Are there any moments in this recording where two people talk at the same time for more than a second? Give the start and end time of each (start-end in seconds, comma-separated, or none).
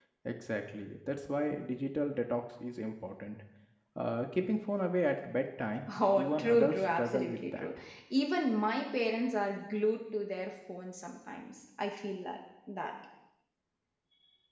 6.2-7.7